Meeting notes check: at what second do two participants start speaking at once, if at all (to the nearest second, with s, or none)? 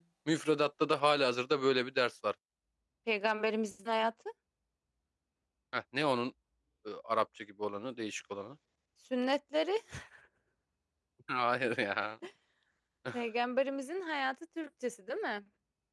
none